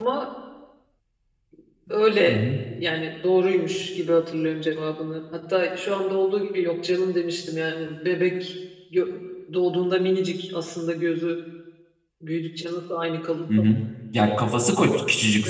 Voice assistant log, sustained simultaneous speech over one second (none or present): none